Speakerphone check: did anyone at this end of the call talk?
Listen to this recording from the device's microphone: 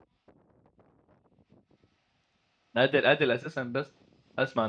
Yes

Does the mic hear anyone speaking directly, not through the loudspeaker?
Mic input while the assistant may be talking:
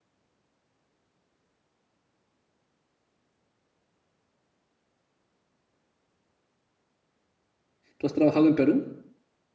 Yes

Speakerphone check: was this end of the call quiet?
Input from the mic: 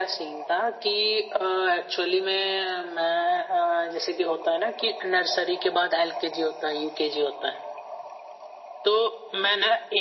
Yes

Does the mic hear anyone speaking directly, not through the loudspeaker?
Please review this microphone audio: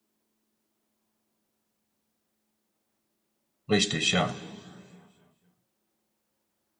Yes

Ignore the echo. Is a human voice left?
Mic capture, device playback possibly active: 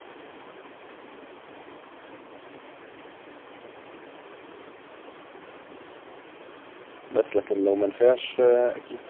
Yes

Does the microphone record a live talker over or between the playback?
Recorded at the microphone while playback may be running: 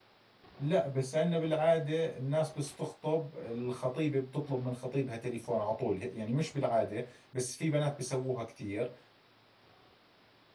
Yes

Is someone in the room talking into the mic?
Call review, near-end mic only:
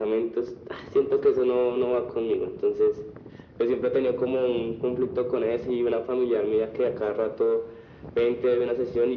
No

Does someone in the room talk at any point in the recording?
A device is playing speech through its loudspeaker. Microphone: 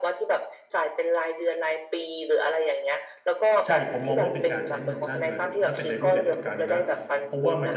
Yes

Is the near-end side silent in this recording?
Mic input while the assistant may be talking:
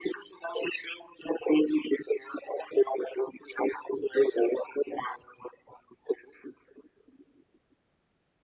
Yes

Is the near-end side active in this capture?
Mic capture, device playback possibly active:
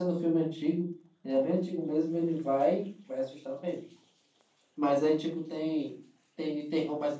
No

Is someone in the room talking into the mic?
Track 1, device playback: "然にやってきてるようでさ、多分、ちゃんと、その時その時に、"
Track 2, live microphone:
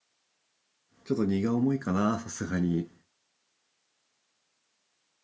Yes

